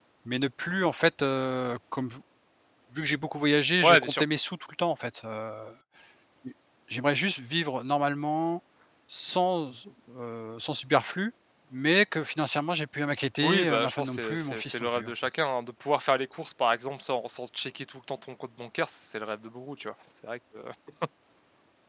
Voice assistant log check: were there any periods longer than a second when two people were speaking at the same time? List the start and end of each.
13.4-15.1

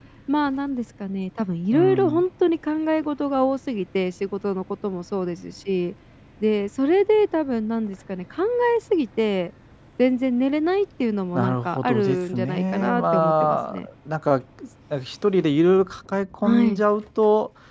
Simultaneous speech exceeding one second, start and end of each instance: 11.3-13.6

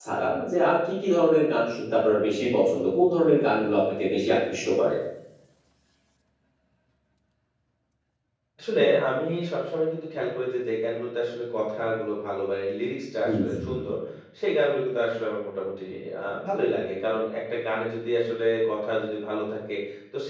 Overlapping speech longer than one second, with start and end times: none

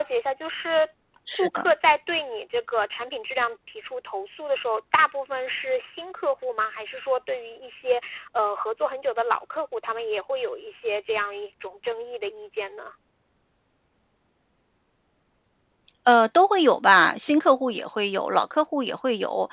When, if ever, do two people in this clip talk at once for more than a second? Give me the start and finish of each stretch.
none

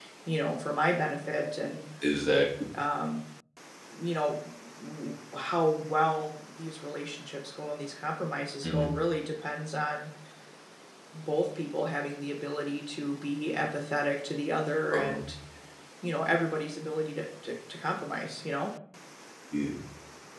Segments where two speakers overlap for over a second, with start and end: none

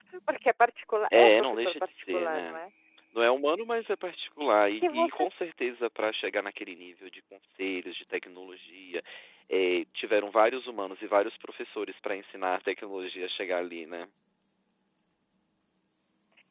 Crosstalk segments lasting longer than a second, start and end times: 1.1-2.6

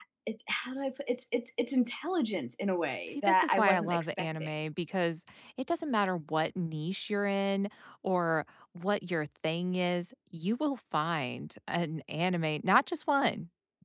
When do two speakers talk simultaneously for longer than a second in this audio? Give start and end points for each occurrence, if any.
3.1-4.5

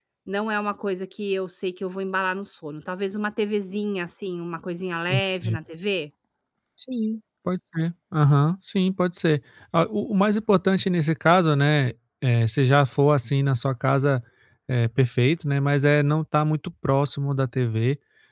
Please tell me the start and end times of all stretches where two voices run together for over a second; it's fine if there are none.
none

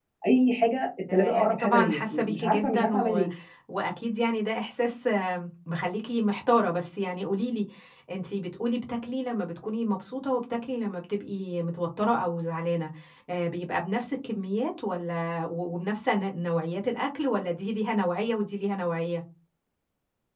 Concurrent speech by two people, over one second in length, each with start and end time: 1.1-3.2

